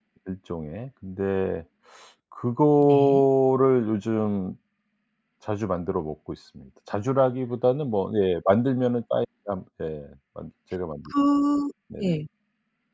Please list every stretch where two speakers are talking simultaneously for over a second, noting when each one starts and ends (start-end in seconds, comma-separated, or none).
none